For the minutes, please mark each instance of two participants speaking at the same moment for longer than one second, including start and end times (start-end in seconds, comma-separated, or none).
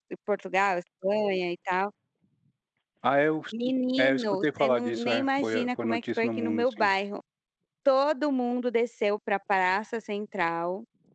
4.0-6.9